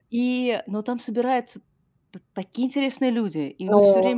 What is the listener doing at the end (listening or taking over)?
listening